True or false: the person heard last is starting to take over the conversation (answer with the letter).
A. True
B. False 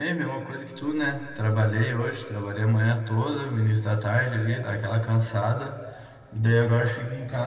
B